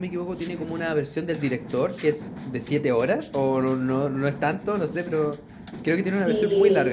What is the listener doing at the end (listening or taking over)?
taking over